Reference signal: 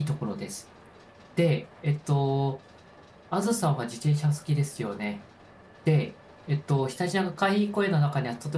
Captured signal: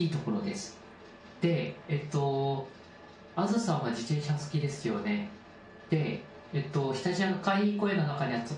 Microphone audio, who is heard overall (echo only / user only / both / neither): echo only